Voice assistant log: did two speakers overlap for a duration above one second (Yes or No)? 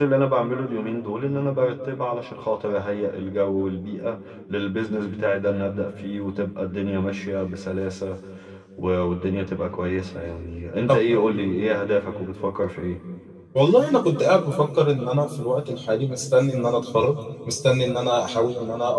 No